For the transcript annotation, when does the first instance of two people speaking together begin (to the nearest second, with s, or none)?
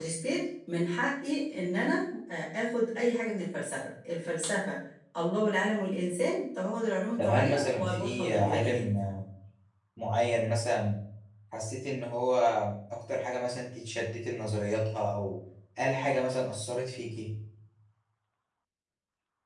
7 s